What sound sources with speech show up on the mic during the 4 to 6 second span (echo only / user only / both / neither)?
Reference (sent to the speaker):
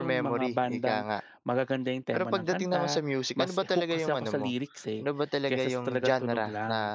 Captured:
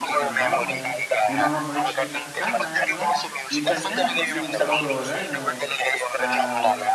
both